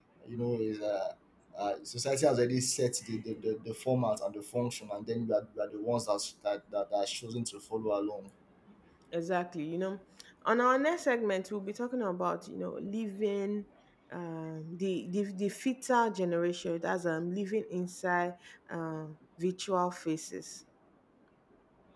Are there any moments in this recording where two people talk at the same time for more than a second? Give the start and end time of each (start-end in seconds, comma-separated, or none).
none